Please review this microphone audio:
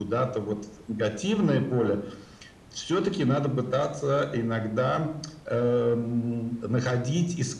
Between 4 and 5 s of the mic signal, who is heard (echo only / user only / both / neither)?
echo only